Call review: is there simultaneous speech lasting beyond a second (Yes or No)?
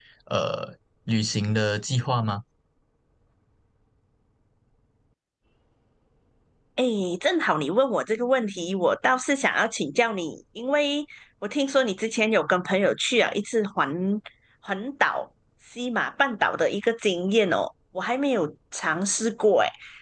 No